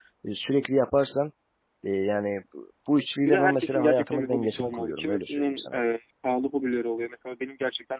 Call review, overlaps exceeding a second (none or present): present